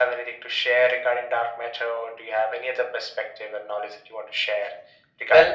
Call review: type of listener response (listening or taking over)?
taking over